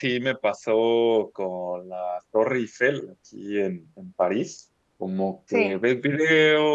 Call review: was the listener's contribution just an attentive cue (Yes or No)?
Yes